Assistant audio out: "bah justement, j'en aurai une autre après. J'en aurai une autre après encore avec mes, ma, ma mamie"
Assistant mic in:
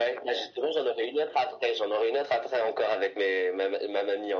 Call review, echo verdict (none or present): present